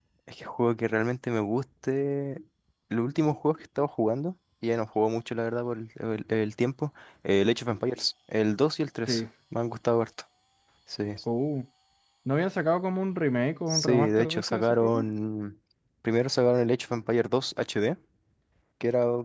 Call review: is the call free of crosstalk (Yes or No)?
No